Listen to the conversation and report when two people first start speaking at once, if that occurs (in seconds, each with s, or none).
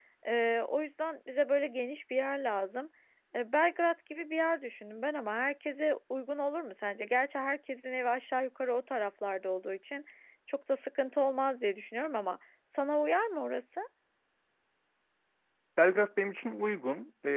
none